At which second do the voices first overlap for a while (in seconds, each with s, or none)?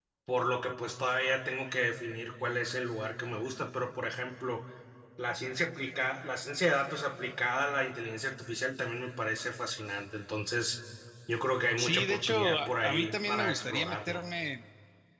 11.8 s